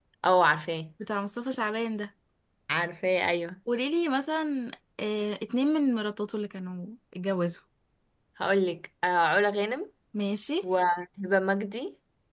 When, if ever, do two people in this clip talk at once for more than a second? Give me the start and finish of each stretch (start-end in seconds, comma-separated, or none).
none